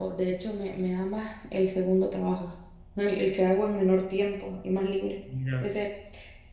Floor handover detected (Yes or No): No